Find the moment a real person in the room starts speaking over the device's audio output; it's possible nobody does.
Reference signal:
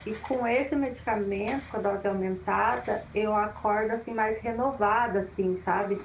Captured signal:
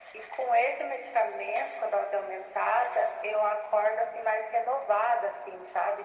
none

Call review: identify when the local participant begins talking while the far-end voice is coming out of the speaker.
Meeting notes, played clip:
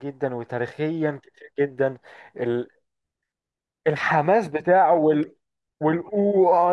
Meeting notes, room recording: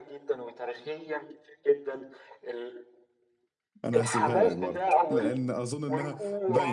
4 s

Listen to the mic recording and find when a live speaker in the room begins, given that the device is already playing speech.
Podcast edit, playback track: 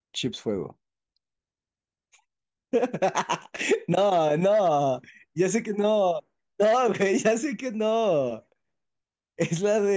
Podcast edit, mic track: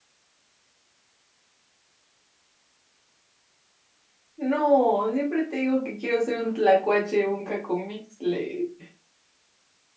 4 s

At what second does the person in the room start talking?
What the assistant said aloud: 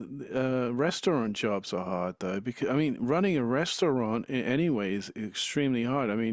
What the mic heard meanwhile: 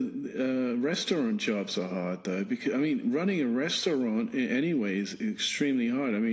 none

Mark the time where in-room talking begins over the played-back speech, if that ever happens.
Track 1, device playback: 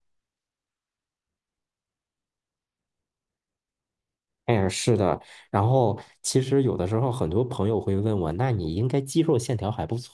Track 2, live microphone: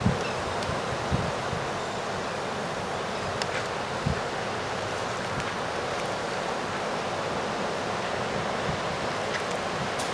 none

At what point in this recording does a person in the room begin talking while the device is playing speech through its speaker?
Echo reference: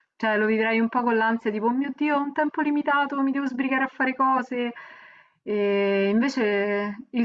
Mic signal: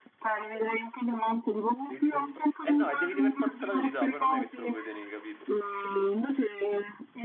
2 s

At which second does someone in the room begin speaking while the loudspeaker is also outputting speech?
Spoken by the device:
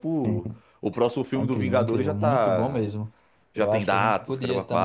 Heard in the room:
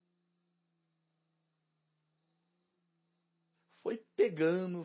4 s

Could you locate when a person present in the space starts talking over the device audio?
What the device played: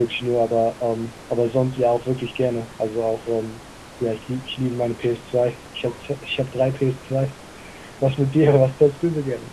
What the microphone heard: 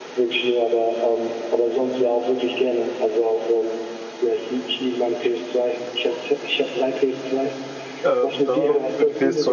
8 s

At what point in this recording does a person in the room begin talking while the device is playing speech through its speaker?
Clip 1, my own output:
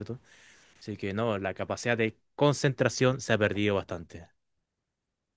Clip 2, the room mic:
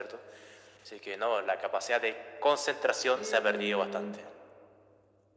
3 s

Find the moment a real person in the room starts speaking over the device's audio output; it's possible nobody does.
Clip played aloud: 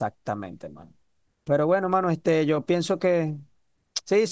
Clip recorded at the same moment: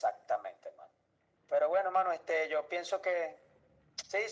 none

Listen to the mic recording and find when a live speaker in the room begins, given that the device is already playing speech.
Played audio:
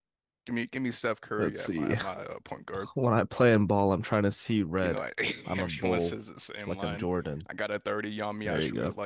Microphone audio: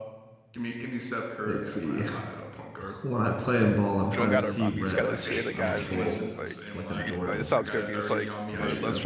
4 s

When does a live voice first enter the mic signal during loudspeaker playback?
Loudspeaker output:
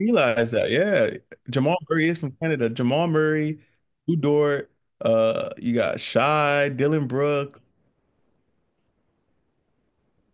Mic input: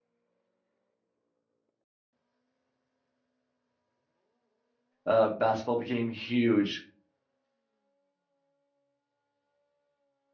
5 s

